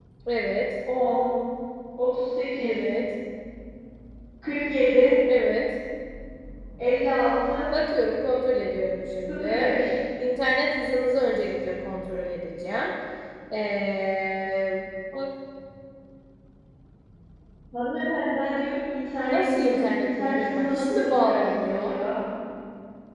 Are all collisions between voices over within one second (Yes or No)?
No